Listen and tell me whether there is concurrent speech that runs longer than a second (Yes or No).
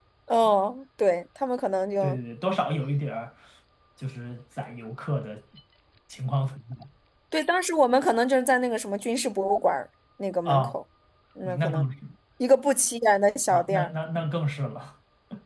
No